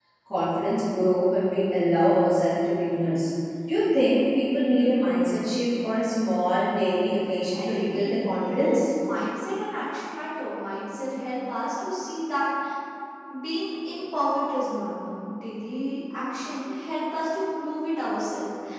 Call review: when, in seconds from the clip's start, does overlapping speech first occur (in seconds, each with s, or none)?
7.5 s